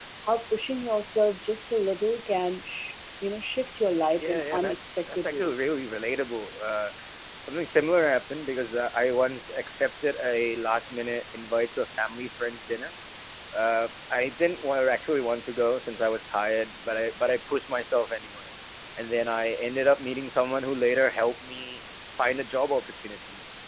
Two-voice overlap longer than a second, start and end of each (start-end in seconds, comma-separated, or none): 4.2-5.7